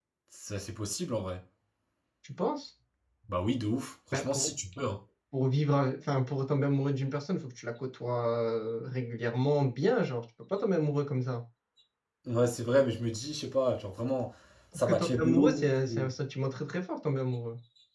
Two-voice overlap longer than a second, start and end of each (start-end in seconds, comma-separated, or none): 14.8-16.1